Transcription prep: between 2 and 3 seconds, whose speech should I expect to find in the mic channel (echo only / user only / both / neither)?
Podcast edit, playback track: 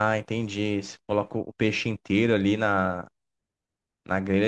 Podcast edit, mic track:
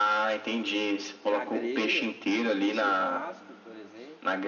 both